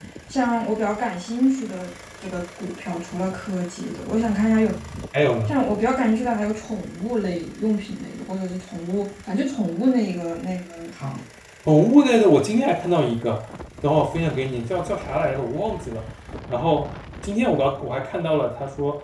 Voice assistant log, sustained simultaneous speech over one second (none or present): none